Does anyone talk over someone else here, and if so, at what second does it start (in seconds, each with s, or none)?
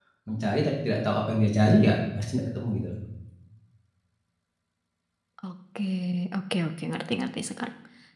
none